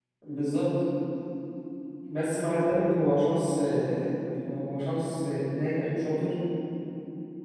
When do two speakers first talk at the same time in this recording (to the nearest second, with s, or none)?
none